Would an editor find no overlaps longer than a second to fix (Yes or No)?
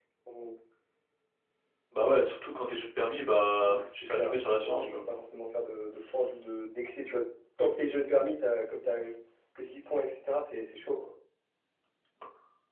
No